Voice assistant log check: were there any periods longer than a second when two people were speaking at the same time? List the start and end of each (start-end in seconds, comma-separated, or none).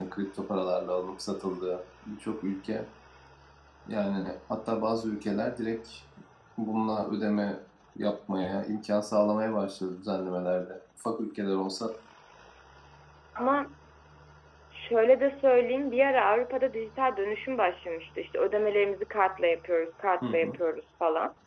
none